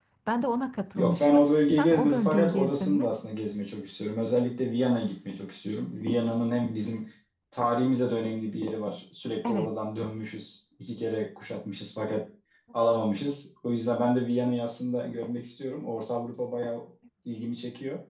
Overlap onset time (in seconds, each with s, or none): 0.9 s